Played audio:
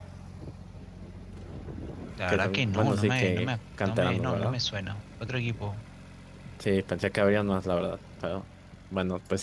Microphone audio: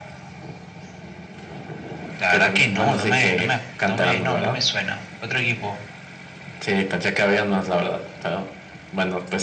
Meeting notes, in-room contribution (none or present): none